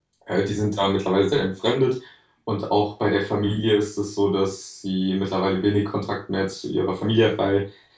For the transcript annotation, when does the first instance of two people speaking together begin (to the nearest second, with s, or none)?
none